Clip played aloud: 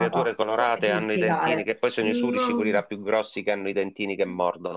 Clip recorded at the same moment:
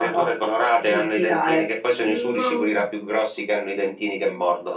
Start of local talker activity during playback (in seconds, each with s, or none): none